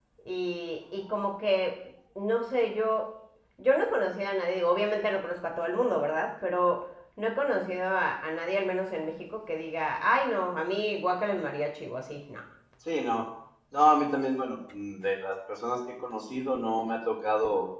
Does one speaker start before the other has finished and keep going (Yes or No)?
No